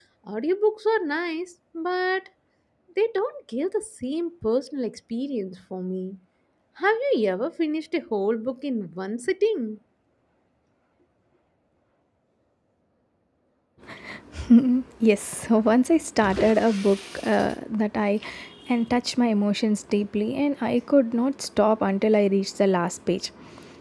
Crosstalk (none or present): none